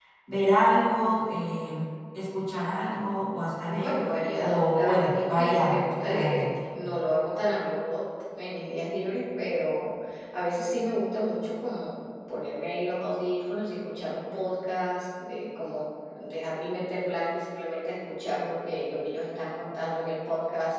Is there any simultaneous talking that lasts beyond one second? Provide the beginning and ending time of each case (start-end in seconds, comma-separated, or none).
3.7-6.4